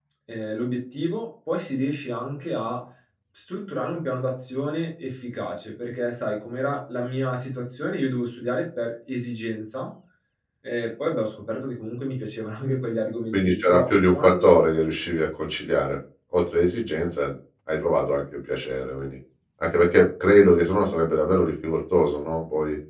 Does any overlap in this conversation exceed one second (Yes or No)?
Yes